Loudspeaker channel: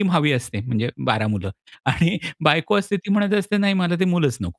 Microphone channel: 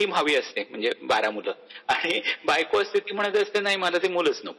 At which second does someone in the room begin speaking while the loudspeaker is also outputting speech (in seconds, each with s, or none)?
none